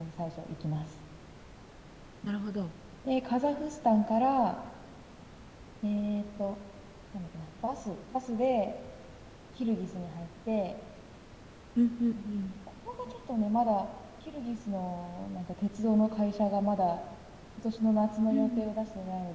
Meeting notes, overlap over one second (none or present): none